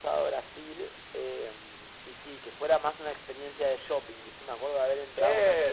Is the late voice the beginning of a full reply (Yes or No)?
No